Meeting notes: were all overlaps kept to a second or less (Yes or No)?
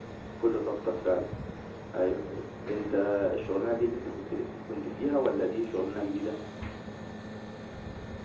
No